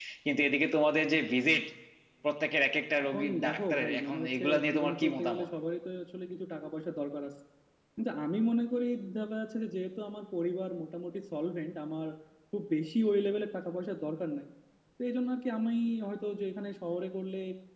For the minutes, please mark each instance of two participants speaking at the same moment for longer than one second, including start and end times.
3.1-5.5

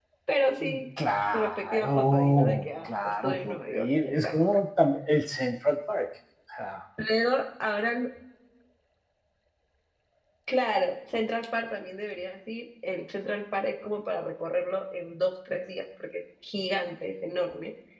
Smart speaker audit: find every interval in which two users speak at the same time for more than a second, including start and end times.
1.3-4.6

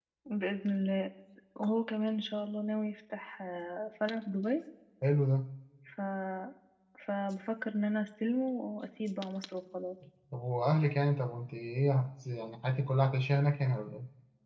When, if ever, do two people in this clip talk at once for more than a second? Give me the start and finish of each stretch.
none

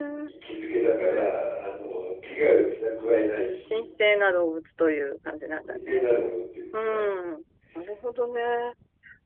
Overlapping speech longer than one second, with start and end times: none

